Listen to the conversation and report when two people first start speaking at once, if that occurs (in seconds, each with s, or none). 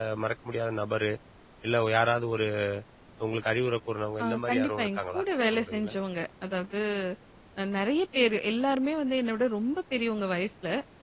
4.2 s